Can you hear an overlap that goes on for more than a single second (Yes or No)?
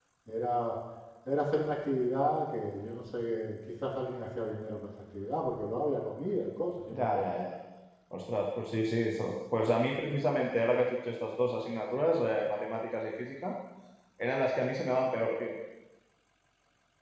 No